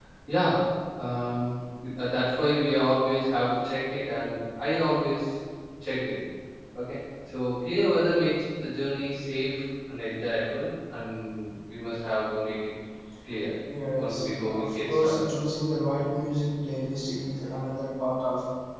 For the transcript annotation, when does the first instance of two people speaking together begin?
13.9 s

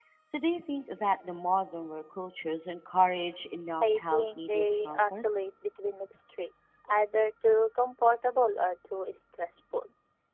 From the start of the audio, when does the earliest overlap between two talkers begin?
3.8 s

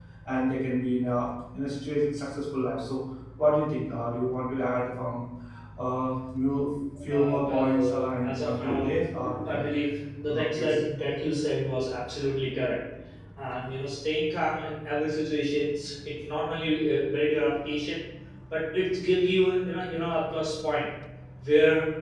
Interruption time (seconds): 7.1 s

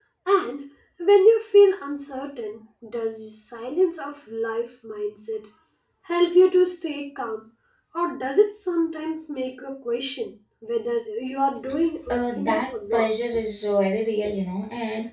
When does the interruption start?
12.1 s

